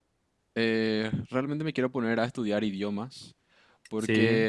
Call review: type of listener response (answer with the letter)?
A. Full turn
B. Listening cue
B